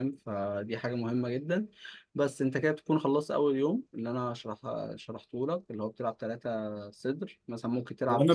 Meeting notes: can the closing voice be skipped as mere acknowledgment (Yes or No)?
No